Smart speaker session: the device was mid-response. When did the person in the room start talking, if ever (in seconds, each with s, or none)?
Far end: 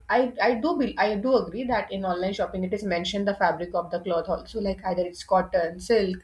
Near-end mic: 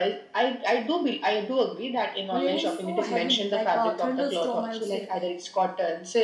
2.3 s